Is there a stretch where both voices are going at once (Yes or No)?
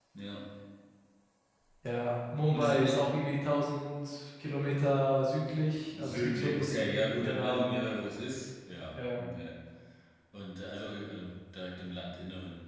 Yes